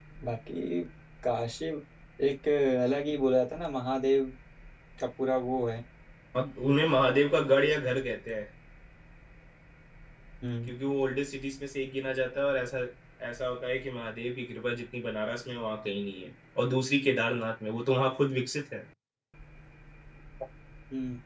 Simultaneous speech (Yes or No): No